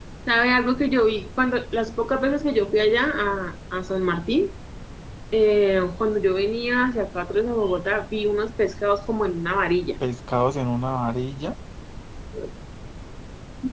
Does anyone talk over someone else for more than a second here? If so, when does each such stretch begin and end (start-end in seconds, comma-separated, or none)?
none